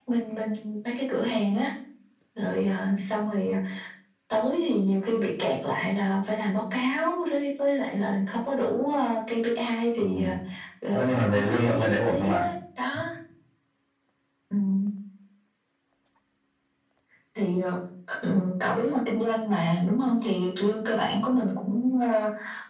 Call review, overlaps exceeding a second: present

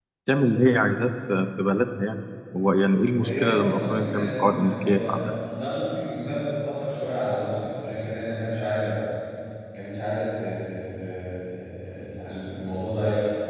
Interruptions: present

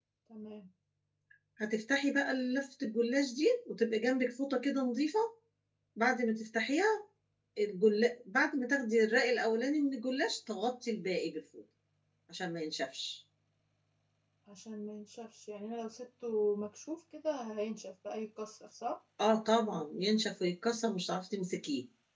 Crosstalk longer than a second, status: none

